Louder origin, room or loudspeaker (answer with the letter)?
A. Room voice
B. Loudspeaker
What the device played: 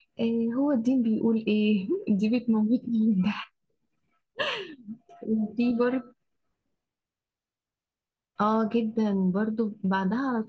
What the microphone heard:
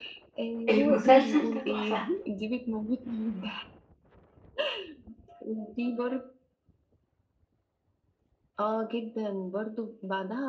A